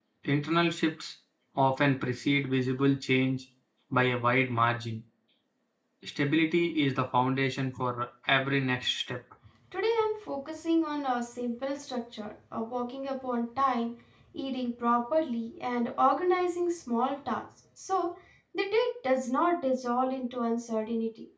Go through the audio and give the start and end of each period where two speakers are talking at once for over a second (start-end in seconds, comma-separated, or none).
none